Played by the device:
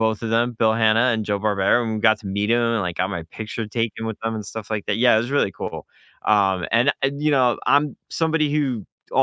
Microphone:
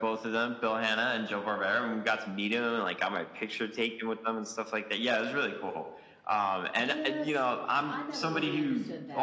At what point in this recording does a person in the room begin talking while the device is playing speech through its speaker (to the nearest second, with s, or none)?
7 s